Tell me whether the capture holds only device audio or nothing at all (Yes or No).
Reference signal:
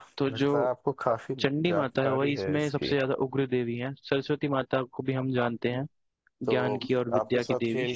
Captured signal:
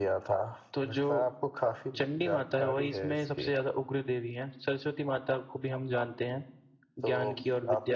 Yes